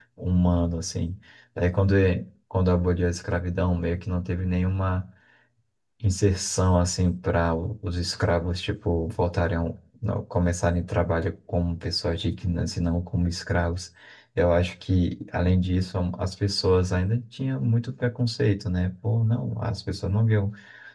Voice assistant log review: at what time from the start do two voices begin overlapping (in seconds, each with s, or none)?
none